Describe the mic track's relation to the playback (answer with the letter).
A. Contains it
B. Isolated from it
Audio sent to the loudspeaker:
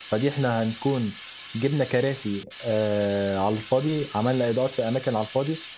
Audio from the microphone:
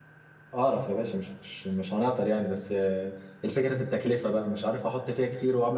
B